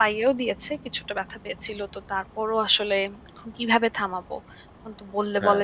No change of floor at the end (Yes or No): Yes